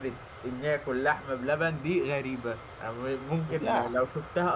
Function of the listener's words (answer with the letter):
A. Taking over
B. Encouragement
B